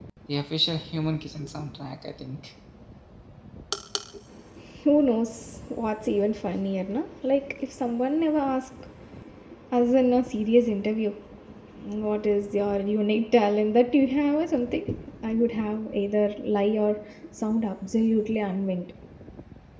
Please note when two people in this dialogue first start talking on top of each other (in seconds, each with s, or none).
none